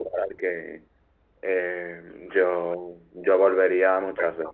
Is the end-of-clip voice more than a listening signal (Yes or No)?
Yes